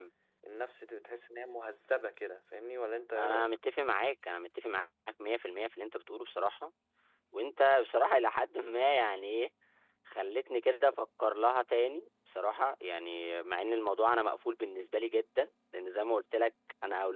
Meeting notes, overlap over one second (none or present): none